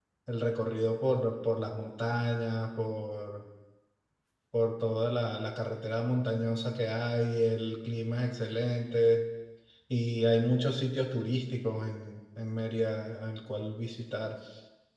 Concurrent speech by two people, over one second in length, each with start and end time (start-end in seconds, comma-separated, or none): none